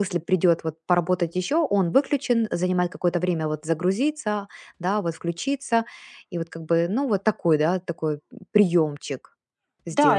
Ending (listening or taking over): taking over